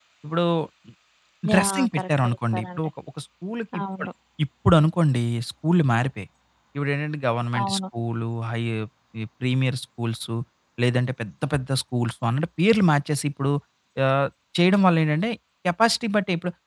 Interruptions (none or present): present